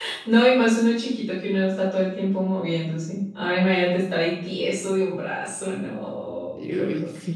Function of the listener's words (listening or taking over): taking over